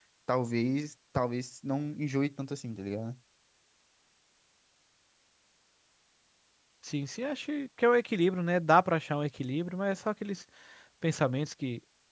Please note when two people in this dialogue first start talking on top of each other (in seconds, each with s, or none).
none